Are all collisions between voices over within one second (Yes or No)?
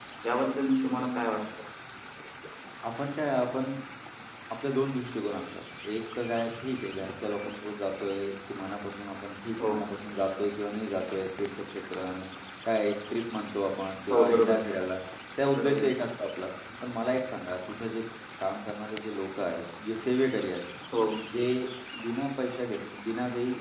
Yes